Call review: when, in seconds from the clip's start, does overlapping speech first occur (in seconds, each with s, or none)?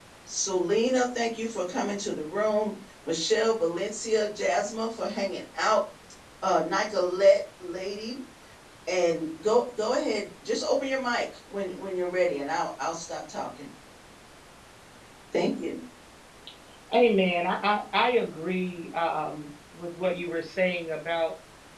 none